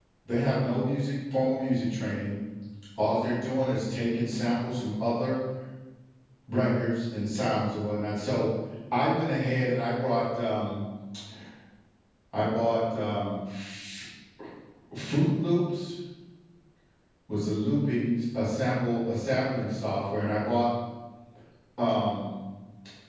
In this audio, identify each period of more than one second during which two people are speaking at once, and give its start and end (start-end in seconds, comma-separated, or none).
none